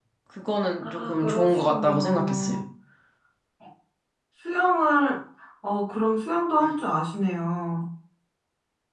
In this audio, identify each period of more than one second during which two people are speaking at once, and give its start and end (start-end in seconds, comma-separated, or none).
0.8-2.6